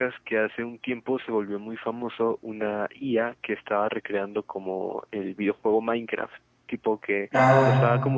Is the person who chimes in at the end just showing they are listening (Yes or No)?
Yes